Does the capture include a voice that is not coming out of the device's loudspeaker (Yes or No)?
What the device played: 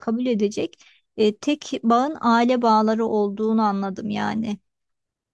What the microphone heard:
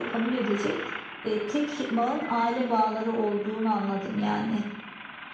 No